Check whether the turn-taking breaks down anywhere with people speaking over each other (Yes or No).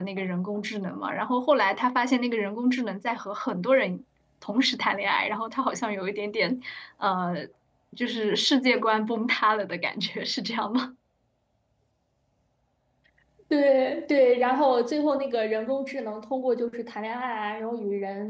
No